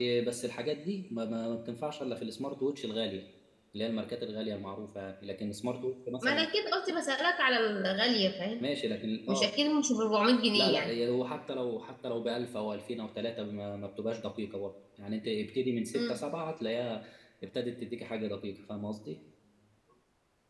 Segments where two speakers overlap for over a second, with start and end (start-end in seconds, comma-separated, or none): none